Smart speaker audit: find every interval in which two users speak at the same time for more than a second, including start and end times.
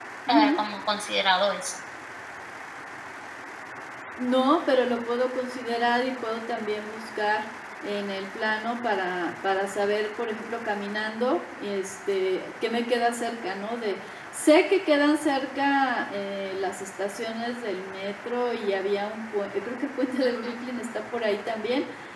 none

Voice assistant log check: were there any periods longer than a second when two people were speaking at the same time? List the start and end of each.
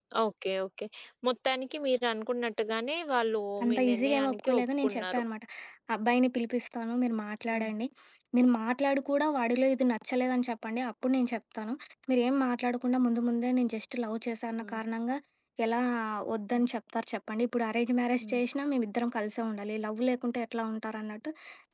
3.6-5.2

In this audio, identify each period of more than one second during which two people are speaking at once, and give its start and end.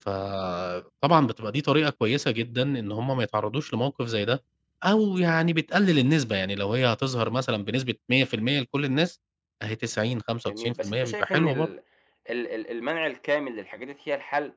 10.5-11.7

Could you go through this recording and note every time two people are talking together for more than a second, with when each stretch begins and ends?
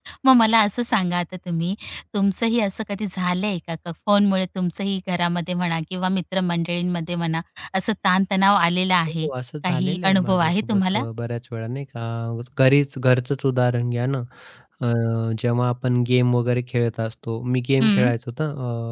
9.6-11.0

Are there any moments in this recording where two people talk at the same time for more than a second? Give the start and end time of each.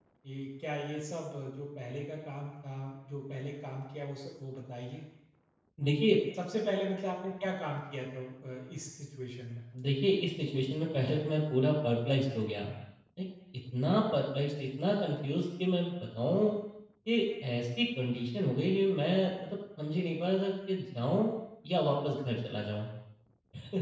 none

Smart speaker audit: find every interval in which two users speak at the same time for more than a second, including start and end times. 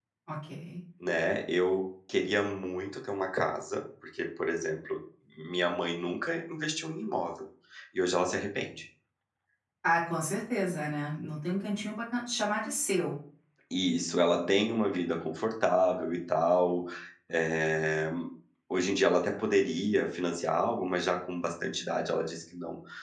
none

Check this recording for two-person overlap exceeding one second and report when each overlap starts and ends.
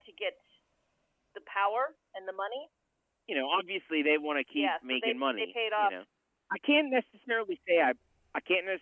4.6-5.9

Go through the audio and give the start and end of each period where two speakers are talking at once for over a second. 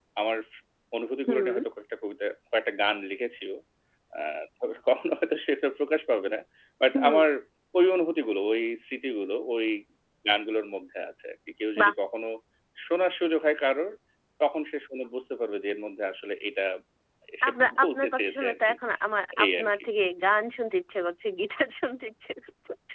17.5-18.7

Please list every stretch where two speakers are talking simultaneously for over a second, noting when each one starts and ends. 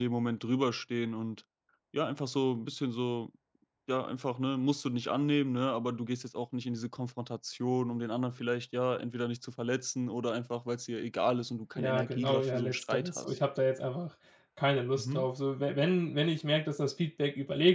11.8-13.3

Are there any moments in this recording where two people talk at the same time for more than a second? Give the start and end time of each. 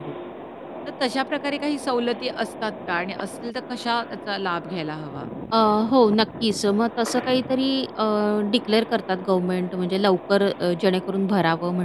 none

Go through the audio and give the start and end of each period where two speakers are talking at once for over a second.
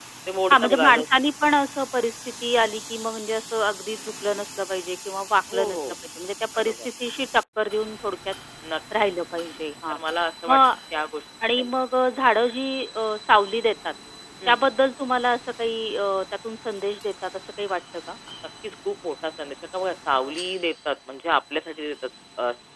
none

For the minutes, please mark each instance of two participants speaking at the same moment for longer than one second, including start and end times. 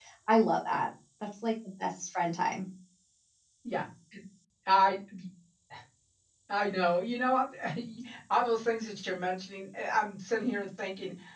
none

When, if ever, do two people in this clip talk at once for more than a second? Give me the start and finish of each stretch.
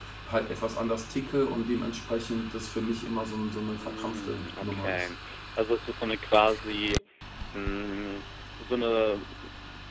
3.8-5.1

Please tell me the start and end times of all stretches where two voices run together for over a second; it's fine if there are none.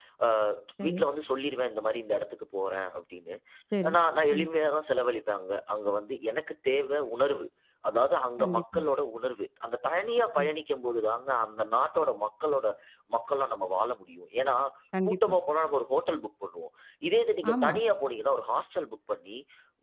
none

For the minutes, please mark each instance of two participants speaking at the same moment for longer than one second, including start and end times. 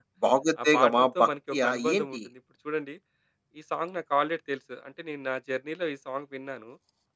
0.6-2.2

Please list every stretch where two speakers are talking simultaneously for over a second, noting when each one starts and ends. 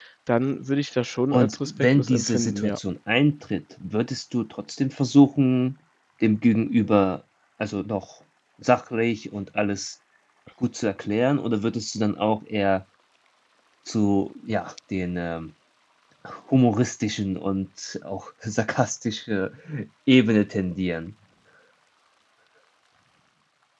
1.3-2.8

